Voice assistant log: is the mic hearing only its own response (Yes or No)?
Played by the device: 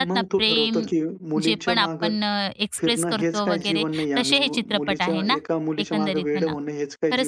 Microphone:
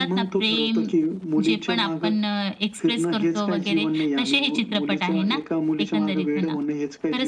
Yes